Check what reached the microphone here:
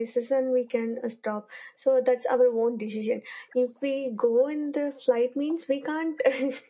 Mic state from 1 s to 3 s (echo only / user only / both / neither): echo only